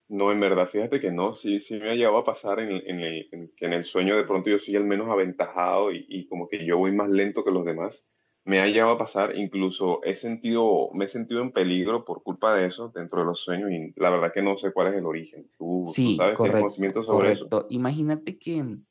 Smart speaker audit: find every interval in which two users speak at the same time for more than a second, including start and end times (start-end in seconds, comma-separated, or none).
15.8-17.4